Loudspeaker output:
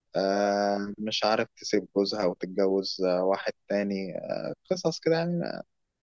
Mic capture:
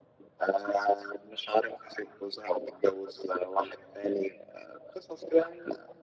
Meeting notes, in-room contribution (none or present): none